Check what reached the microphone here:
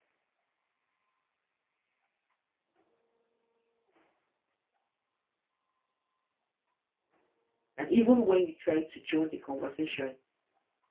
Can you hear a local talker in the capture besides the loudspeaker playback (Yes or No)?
Yes